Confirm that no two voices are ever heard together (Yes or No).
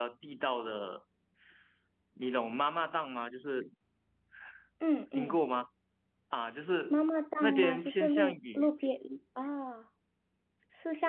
No